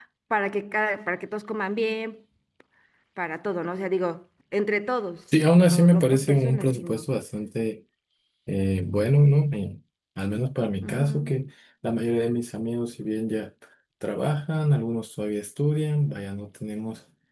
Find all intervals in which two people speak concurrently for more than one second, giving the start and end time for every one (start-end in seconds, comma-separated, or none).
5.6-7.0